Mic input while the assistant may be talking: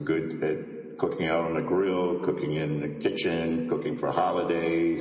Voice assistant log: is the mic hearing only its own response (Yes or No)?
Yes